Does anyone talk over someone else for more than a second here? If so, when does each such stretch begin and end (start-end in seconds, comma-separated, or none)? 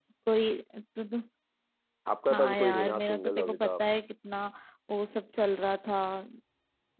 2.3-3.8